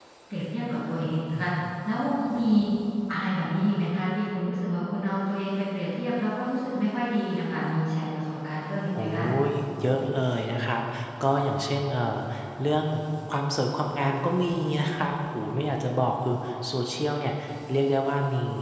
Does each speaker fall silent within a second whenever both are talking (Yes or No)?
Yes